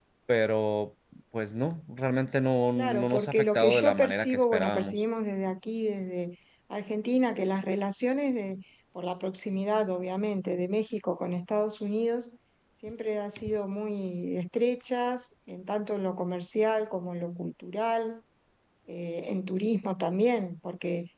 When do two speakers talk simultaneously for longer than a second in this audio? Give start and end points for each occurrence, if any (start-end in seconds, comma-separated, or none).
2.8-5.0